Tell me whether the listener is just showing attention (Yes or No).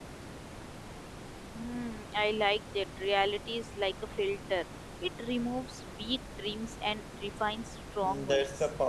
No